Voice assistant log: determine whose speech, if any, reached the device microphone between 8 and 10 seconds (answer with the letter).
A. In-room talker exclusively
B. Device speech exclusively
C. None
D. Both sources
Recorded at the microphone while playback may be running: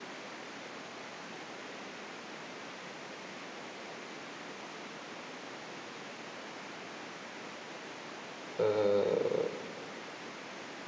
A